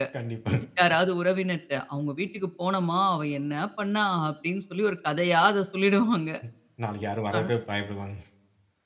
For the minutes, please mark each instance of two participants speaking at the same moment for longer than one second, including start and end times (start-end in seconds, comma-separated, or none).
none